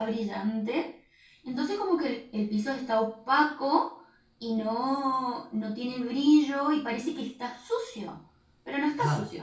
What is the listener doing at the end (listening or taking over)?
taking over